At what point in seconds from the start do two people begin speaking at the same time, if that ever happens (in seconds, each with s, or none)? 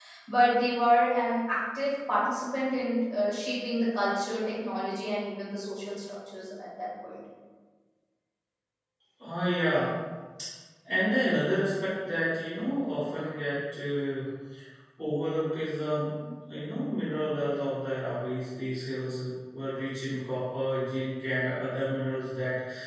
none